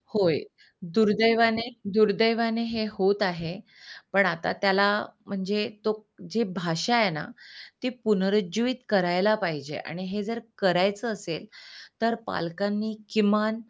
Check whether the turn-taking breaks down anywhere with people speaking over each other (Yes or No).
No